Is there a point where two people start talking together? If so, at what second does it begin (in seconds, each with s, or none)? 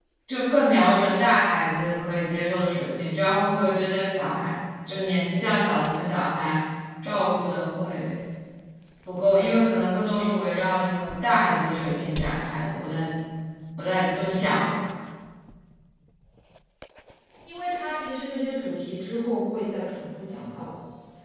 none